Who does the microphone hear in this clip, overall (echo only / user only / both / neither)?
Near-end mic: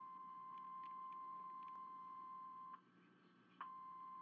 neither